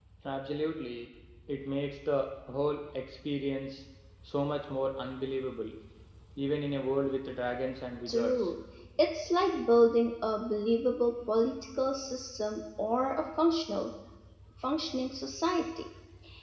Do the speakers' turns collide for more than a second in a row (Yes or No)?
No